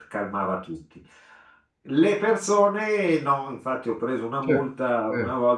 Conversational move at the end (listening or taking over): listening